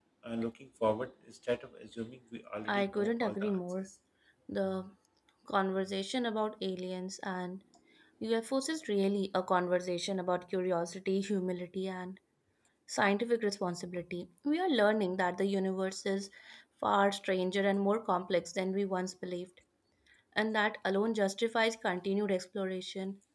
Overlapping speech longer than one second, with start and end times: 2.7-3.9

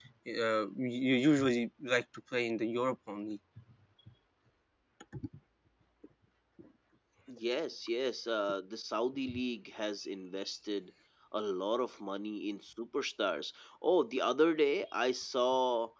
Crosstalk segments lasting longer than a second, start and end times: none

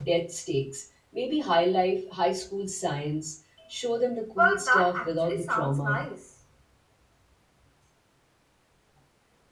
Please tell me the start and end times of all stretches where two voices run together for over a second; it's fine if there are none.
4.4-6.0

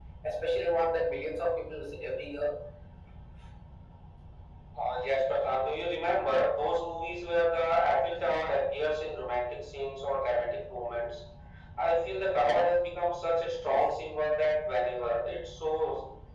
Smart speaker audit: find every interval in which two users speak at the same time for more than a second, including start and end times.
none

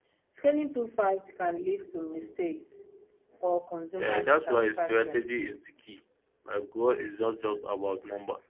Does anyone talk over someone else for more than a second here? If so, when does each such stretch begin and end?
4.0-5.2

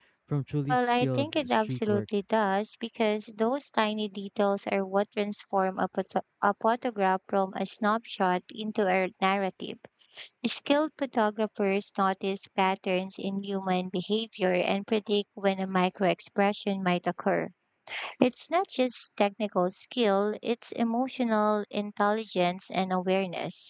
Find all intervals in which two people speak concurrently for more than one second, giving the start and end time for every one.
0.7-2.0

